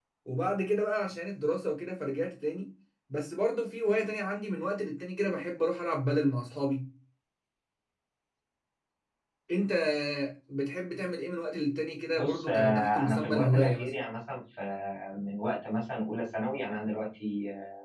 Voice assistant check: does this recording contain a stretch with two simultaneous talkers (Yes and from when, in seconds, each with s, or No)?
Yes, from 12.2 s